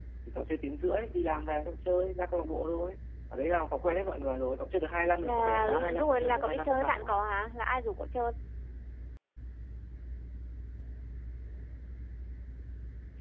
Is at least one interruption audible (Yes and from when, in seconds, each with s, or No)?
Yes, from 5.2 s